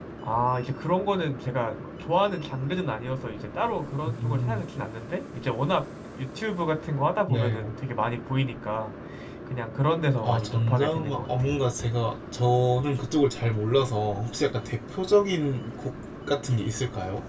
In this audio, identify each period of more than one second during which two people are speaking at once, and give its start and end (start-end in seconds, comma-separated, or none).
10.2-11.6